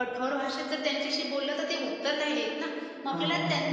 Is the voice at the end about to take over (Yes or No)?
No